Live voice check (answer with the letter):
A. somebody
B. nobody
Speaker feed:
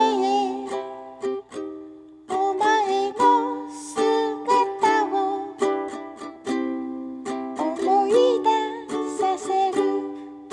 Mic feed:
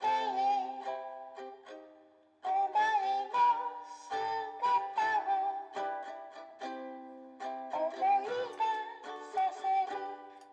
B